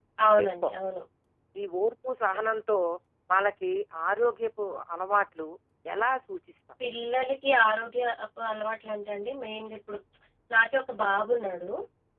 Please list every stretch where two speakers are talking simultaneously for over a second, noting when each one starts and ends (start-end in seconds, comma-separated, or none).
none